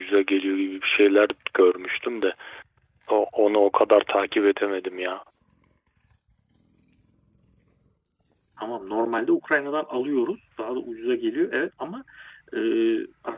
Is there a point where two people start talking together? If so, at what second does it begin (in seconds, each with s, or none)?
none